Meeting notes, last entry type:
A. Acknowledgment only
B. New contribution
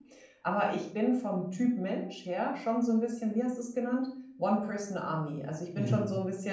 A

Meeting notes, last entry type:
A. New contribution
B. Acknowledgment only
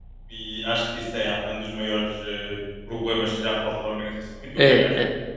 A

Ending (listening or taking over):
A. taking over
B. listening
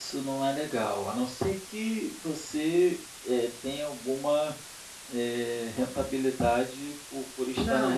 A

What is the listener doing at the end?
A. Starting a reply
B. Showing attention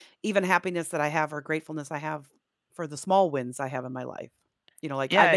B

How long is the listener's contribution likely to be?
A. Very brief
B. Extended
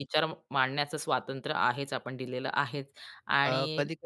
B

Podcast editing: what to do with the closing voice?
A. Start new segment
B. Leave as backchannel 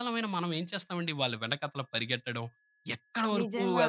B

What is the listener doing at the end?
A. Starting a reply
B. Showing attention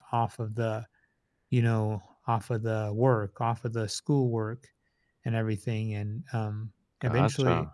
B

